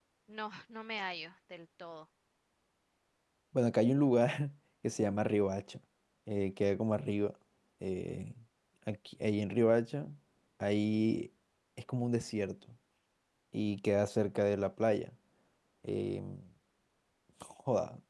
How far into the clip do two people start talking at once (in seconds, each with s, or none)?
none